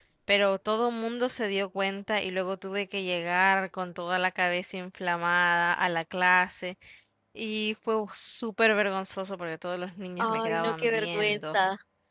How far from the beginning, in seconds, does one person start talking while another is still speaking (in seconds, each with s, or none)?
10.2 s